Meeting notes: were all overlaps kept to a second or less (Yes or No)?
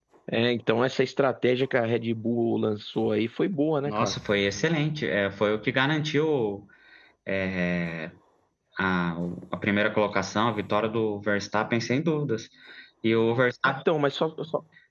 Yes